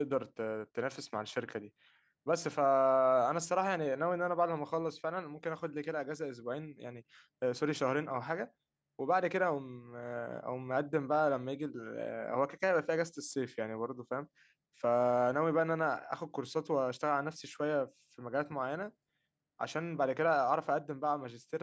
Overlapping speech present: No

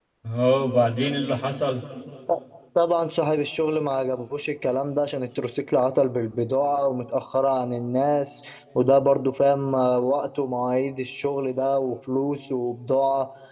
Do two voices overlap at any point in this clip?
No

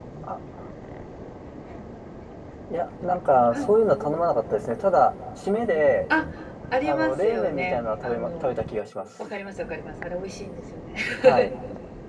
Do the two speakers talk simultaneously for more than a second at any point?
Yes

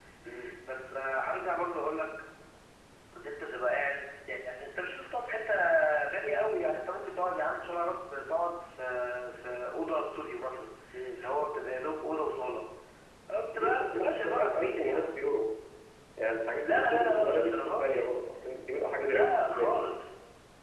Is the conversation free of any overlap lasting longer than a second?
No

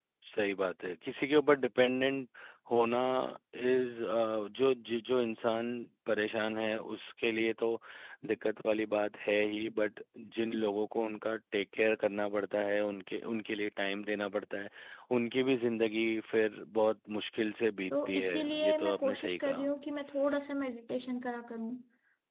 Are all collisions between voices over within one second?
No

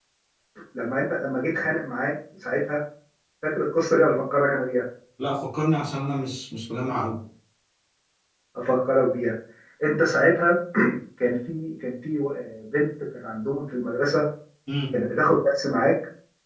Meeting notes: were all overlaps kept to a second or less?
Yes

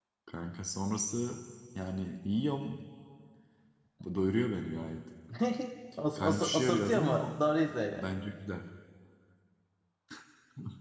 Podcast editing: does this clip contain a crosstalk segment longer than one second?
Yes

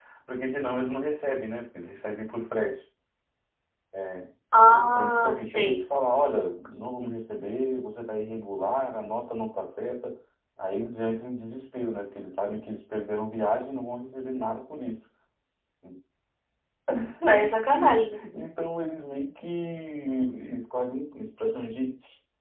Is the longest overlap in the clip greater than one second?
Yes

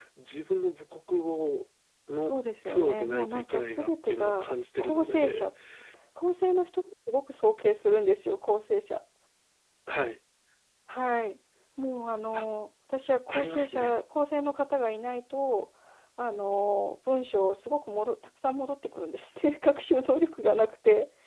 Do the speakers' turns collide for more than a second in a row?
Yes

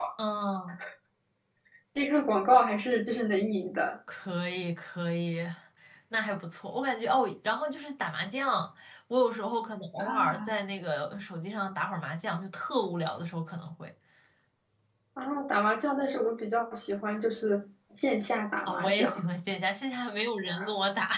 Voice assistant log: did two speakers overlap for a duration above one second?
No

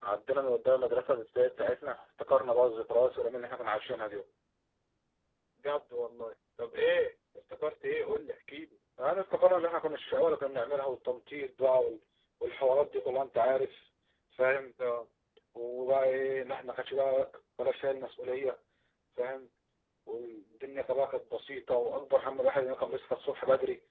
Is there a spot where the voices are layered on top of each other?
No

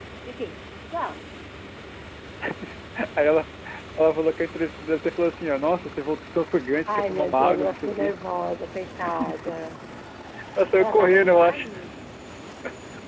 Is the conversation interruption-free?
No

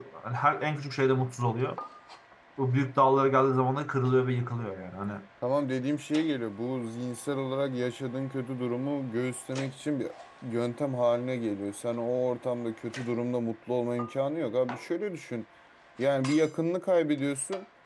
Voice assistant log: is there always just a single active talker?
Yes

